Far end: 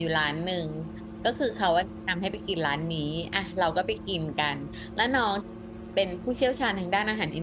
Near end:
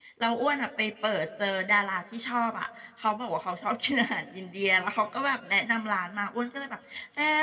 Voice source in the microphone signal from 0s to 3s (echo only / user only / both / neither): user only